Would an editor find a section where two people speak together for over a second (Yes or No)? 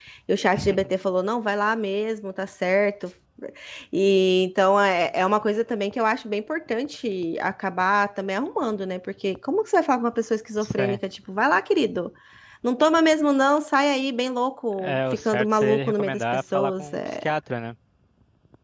Yes